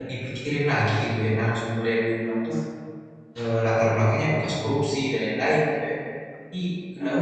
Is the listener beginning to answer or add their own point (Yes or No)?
No